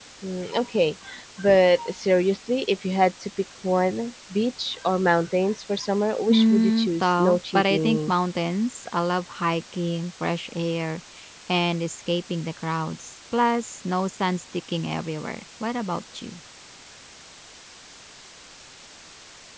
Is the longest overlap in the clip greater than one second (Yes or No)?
Yes